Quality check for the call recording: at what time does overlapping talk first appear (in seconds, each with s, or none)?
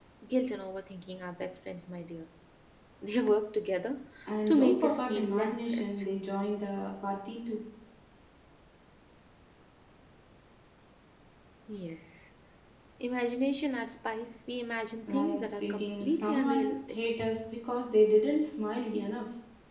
4.5 s